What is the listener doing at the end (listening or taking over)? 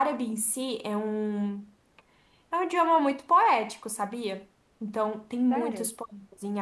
listening